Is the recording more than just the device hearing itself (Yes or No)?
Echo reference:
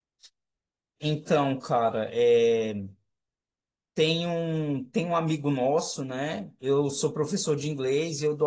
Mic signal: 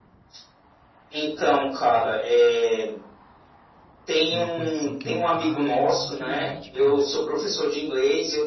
Yes